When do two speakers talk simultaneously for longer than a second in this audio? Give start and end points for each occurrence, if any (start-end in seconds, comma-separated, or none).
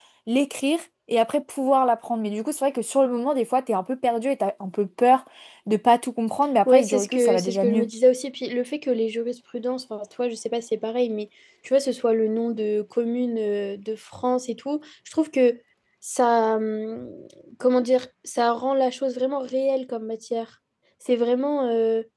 6.6-7.8